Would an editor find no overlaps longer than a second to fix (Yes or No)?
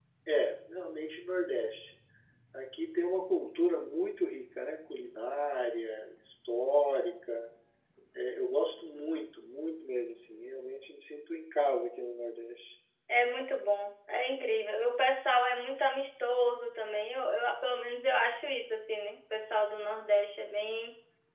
Yes